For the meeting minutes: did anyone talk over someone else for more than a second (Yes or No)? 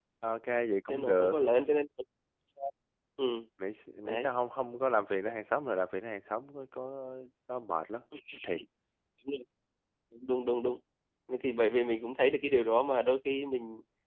No